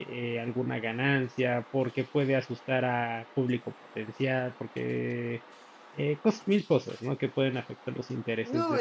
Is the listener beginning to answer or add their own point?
Yes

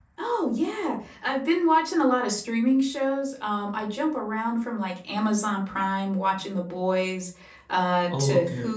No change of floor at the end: Yes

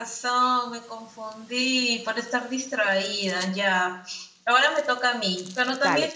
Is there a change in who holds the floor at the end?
No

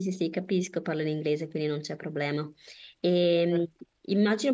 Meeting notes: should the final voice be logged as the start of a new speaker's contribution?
No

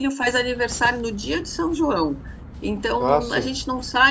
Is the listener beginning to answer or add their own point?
No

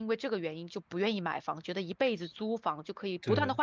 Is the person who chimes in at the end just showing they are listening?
Yes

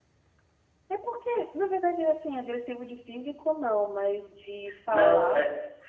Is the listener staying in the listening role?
No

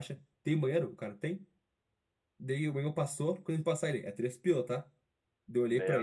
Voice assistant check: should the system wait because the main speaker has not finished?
Yes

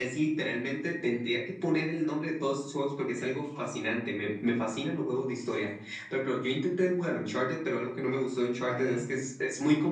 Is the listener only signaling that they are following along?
Yes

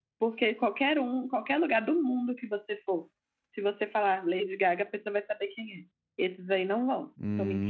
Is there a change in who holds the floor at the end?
Yes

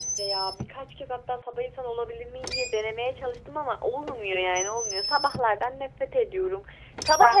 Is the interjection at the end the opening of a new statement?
No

